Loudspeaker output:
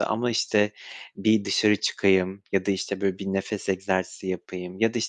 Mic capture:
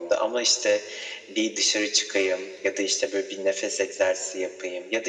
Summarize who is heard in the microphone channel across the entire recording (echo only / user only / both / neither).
echo only